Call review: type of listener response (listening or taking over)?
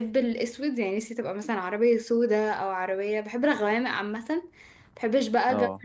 listening